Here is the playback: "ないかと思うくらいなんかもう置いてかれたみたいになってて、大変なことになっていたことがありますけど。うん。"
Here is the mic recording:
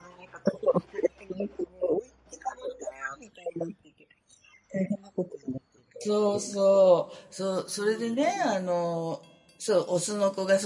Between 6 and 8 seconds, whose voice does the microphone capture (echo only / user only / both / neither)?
both